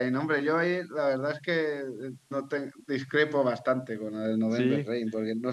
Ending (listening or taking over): listening